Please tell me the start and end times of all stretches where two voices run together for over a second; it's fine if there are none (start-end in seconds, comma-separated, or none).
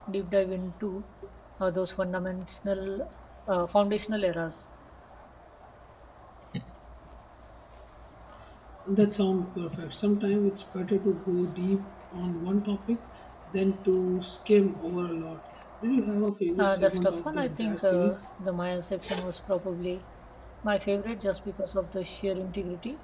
16.6-18.2